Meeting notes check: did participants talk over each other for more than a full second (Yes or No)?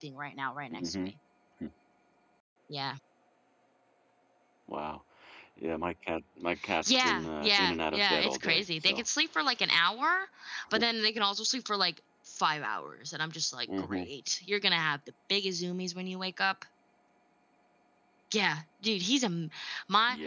Yes